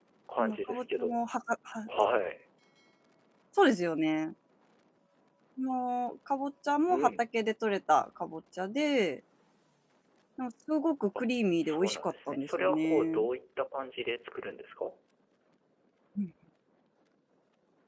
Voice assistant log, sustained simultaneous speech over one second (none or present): present